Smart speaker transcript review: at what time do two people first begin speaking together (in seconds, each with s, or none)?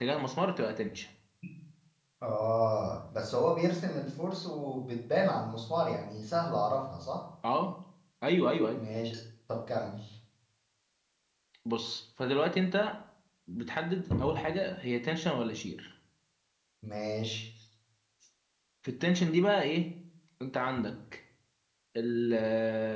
none